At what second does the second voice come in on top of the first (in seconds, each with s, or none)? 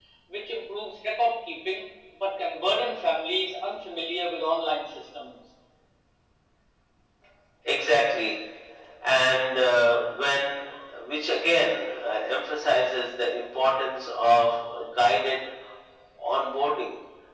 none